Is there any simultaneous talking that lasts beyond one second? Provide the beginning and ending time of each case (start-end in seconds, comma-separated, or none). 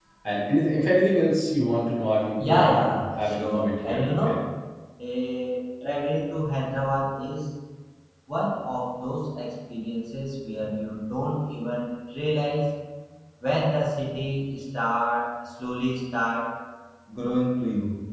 2.4-4.4